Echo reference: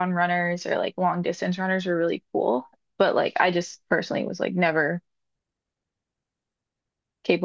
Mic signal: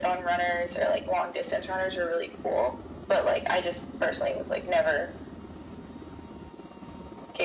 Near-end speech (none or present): none